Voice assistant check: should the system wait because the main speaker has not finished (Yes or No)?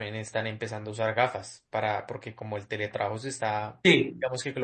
Yes